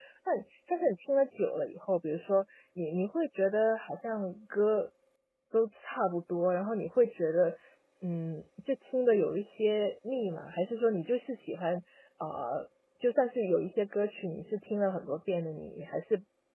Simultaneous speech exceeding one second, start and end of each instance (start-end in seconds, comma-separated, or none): none